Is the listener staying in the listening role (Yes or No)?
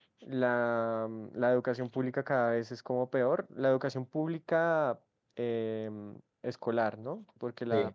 Yes